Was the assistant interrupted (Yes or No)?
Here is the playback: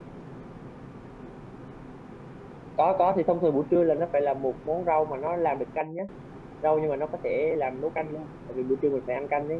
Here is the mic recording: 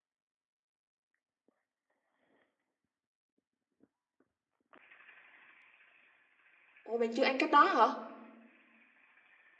Yes